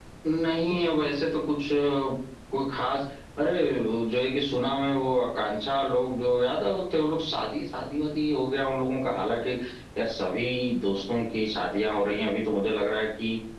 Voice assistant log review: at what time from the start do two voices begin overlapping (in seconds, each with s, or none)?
none